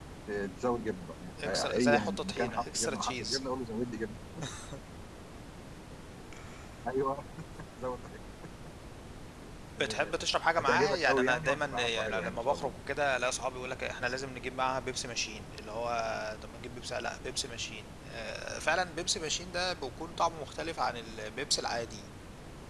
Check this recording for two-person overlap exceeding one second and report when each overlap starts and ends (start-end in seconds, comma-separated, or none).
1.4-3.4, 10.6-12.7